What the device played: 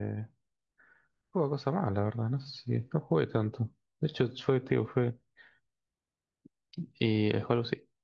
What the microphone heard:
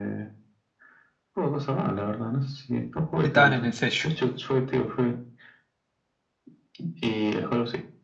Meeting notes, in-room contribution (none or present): present